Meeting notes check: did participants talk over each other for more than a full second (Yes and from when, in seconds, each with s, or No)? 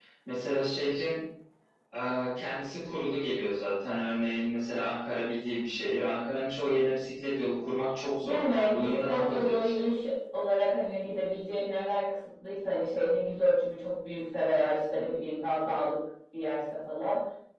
Yes, from 8.2 s